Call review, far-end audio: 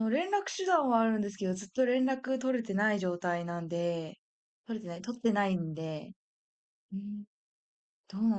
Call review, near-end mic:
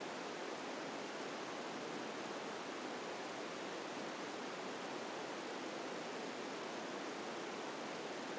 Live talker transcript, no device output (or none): none